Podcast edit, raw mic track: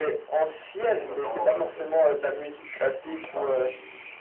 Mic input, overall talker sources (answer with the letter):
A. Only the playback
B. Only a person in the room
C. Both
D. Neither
A